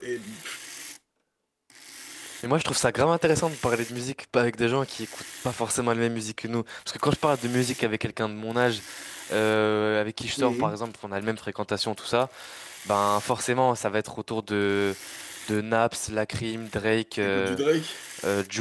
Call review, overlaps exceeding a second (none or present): none